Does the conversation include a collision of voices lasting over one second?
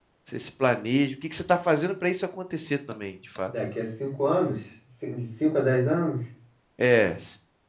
No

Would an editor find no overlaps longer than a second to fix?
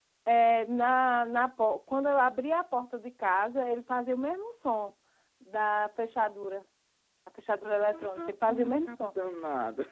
No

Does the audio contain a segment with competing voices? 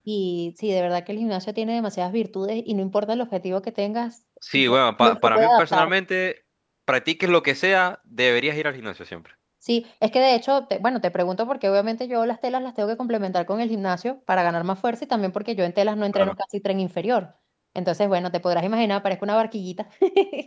Yes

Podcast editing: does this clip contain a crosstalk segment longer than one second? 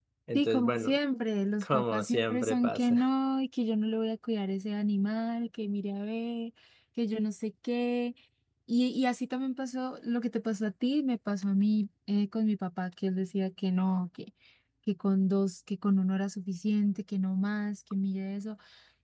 Yes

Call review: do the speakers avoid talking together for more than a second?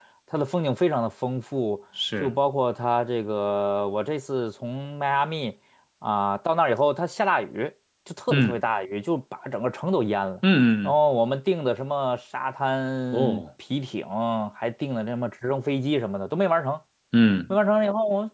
Yes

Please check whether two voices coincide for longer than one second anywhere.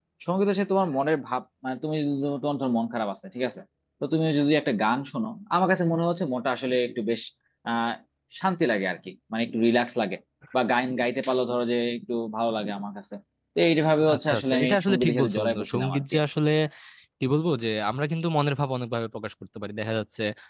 Yes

